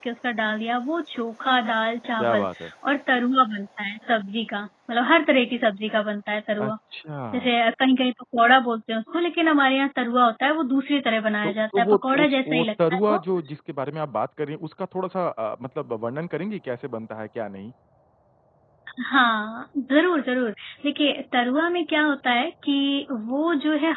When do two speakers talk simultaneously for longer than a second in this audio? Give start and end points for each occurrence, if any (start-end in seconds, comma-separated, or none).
11.4-13.2